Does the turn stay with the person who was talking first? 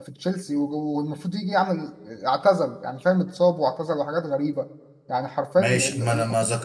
No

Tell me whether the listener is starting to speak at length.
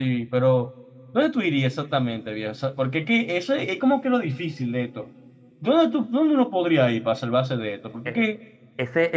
Yes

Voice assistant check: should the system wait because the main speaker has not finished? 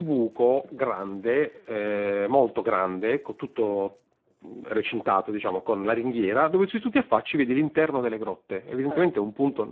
Yes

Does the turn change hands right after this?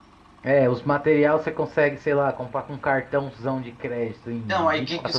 Yes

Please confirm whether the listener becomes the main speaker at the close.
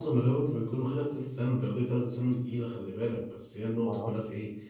No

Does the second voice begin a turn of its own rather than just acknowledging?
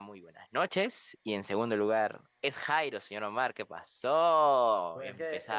Yes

